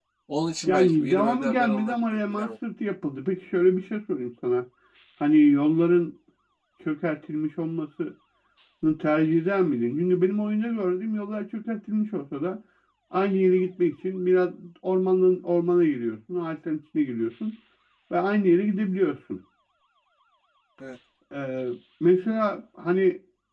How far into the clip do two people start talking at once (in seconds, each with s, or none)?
0.7 s